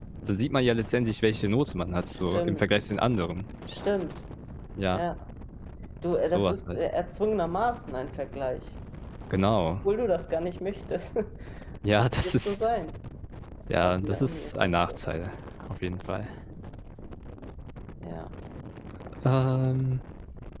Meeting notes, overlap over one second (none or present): present